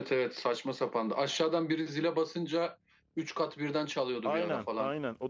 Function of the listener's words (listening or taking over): taking over